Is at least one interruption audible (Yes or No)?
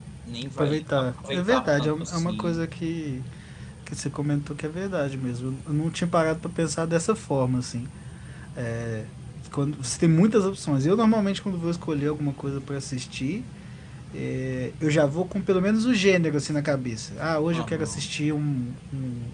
Yes